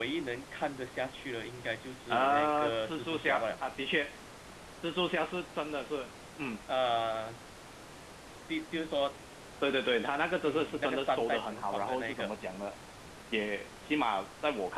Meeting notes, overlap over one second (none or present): present